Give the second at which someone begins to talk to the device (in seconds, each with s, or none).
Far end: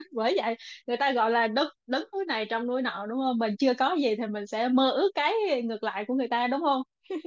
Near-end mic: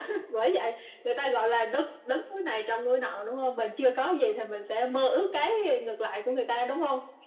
none